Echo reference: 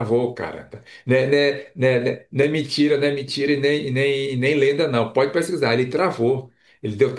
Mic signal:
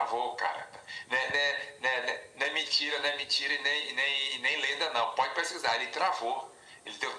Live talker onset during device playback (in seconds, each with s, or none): none